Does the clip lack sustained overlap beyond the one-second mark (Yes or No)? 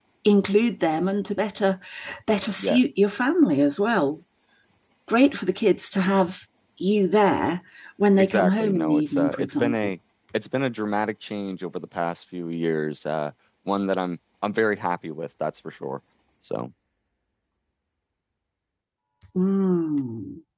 No